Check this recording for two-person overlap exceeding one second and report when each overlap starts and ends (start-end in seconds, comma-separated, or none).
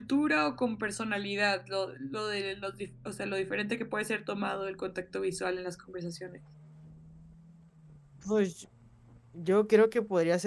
none